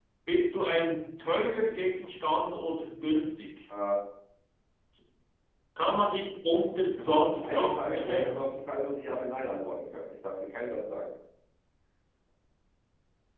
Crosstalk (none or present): present